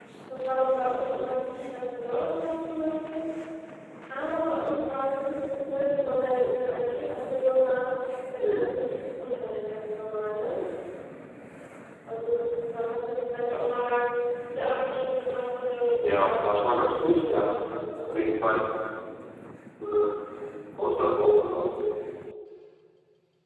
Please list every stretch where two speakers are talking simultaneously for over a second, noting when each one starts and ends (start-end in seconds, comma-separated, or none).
16.0-17.5